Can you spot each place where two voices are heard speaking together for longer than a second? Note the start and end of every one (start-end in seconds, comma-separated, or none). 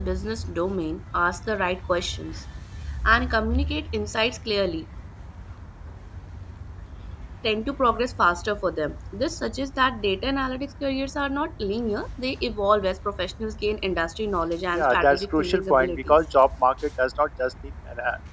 14.7-16.1